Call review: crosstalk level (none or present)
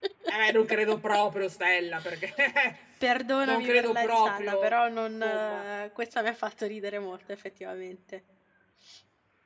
present